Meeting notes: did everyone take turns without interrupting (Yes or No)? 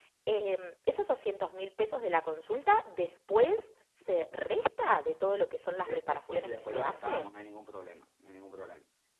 No